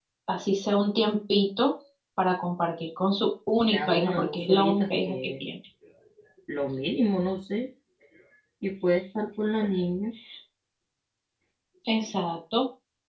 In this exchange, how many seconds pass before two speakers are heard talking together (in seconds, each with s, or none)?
3.7 s